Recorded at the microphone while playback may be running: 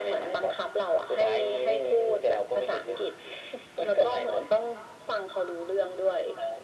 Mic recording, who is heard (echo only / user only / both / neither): echo only